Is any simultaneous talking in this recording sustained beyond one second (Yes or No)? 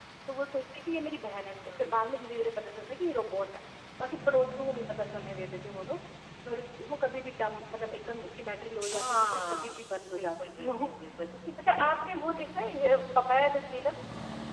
Yes